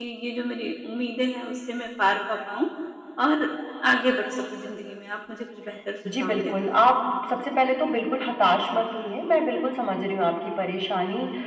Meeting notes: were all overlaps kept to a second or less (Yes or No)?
Yes